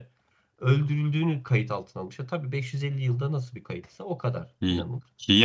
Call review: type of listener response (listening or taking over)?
taking over